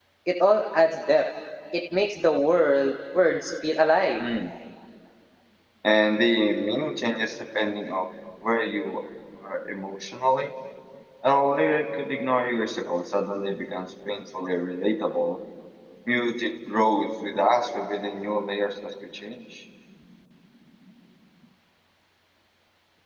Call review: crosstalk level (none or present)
none